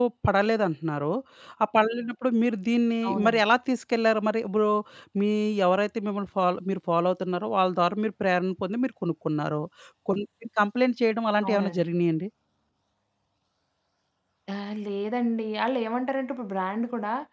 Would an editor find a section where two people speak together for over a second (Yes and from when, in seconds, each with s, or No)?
No